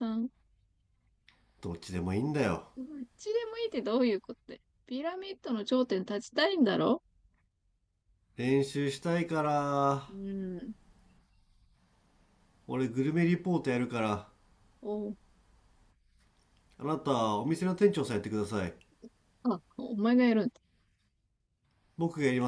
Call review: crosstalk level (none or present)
none